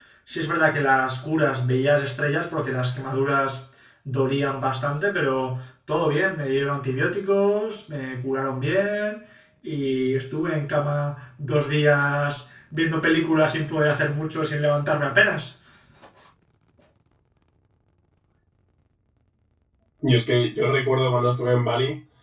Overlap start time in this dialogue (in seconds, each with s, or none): none